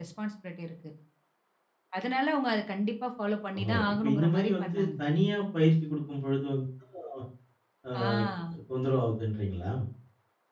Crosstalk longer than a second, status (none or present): present